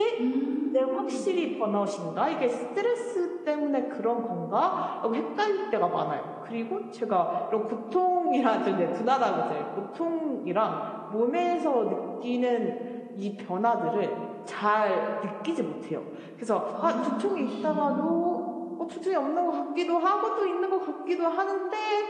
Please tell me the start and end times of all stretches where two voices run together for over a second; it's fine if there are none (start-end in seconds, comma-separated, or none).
16.8-18.2